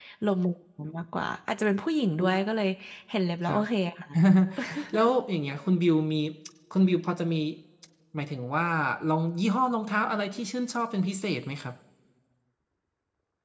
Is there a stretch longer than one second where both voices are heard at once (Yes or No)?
No